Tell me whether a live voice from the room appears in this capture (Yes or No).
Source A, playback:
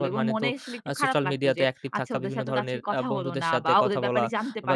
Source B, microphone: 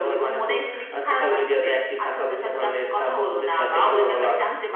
No